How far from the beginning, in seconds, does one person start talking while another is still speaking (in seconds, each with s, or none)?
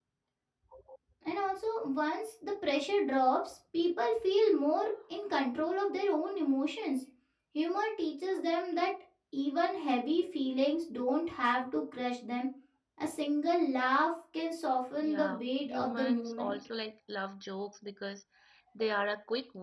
15.0 s